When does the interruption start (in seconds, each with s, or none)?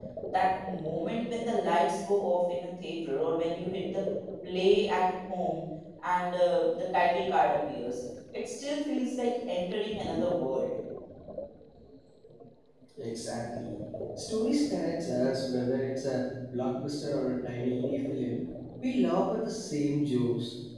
none